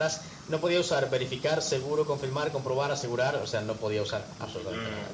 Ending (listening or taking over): taking over